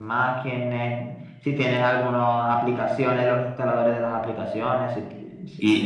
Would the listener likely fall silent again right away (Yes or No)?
No